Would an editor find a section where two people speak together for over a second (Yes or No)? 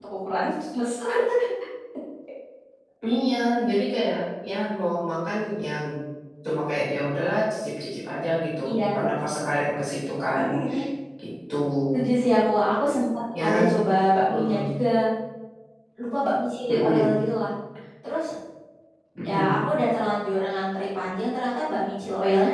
No